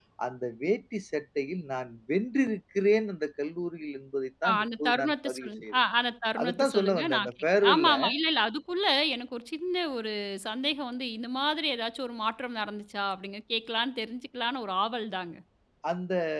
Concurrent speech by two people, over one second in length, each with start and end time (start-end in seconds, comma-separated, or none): 4.5-5.8, 6.4-7.9